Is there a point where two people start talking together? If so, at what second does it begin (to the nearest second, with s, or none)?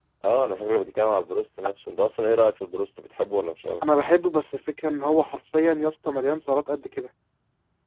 none